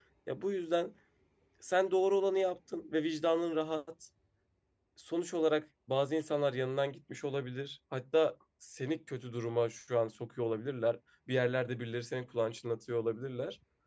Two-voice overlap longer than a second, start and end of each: none

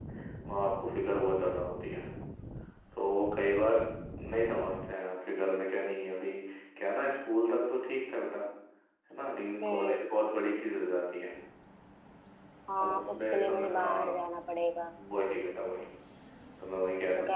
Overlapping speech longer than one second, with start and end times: 12.8-14.2

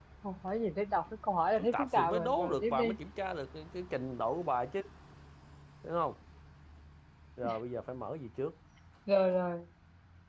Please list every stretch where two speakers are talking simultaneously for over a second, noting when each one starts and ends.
1.6-3.0

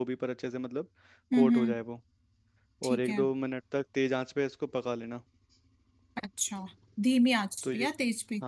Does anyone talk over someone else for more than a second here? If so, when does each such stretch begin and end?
none

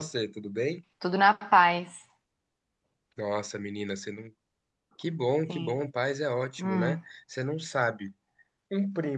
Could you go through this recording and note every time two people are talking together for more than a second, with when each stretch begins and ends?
none

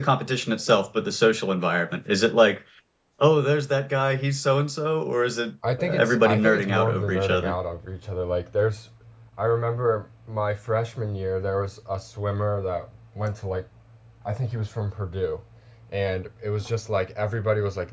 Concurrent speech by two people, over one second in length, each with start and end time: 5.8-7.6

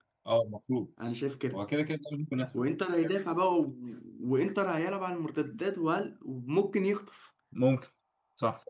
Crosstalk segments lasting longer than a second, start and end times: none

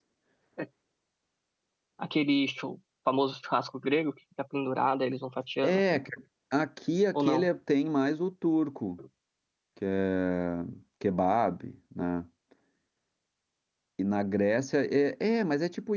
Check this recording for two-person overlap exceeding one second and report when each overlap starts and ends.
none

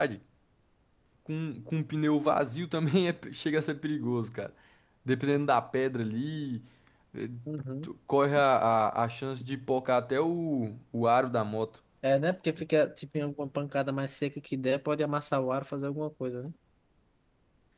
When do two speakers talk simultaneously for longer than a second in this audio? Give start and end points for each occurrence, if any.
none

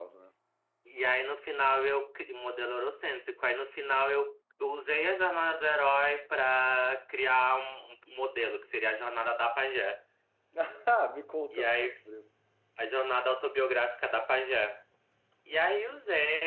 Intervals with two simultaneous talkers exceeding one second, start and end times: none

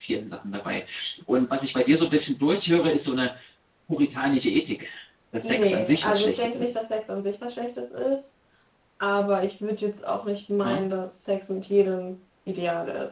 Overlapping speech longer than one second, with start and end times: 5.4-6.7

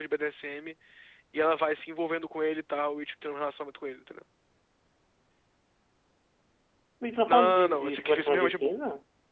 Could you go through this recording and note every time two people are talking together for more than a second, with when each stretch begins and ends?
7.3-8.8

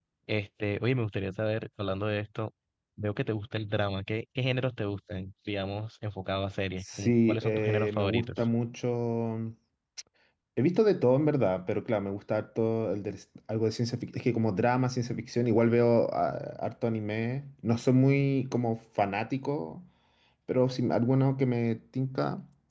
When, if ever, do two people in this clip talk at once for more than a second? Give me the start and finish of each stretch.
6.8-8.4

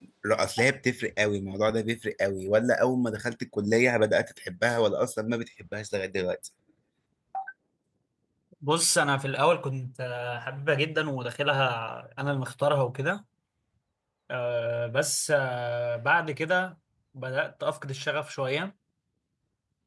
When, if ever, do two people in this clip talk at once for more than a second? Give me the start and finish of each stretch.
none

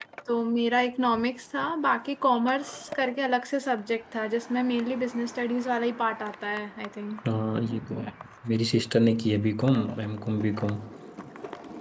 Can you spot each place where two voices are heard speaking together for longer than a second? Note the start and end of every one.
none

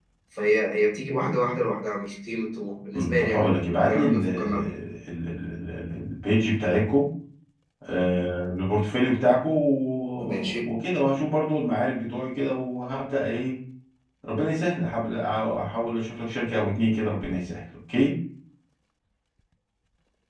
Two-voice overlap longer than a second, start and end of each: 2.9-4.8

